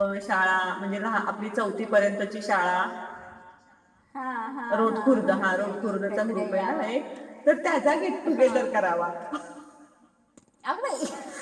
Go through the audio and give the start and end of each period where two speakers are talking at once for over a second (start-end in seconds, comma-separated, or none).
4.8-6.9